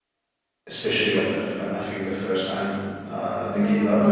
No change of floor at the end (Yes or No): No